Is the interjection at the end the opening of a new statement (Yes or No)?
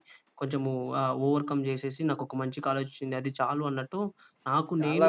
Yes